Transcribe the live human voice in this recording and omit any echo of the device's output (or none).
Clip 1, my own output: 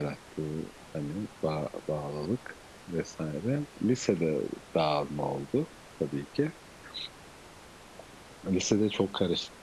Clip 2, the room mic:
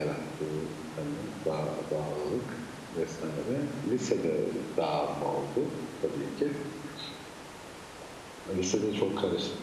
none